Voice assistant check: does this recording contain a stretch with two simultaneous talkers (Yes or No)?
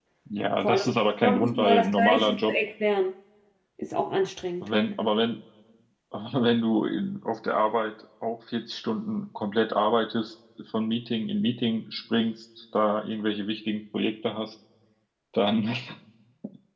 Yes